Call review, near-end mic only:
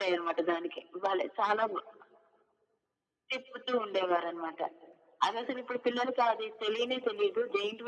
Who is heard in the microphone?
echo only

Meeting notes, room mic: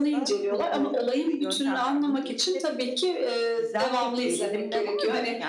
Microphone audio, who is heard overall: both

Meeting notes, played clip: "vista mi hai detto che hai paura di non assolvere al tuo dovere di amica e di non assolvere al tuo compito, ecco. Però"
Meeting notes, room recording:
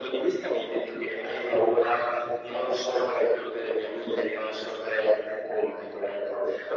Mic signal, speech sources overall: echo only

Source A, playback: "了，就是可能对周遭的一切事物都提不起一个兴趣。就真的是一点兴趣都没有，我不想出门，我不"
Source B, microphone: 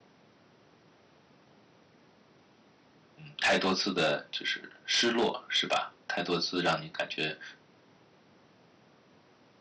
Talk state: user only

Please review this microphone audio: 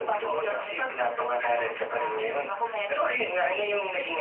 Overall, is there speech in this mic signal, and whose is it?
echo only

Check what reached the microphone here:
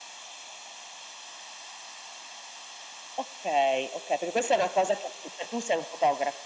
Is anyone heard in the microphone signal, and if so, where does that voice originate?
echo only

